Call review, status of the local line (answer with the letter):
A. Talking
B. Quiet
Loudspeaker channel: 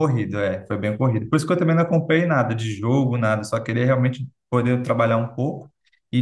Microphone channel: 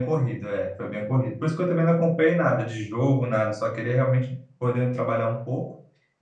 B